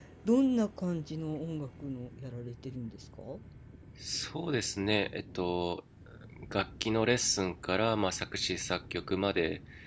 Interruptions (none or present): none